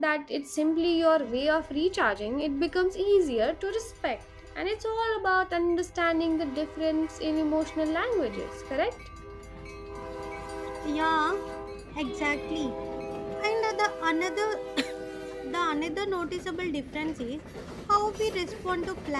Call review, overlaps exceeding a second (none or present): none